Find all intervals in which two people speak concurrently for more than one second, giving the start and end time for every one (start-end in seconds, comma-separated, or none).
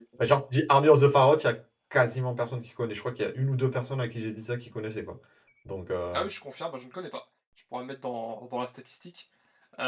none